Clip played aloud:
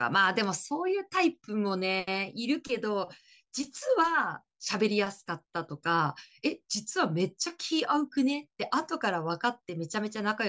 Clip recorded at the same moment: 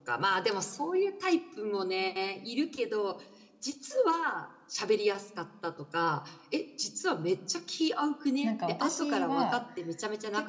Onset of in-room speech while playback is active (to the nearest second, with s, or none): 8 s